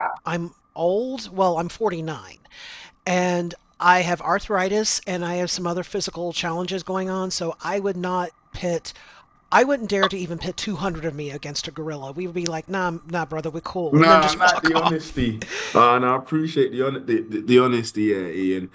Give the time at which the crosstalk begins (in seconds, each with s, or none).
13.9 s